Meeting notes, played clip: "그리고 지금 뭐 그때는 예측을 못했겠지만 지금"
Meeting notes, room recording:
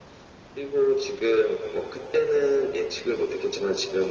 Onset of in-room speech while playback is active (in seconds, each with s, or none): none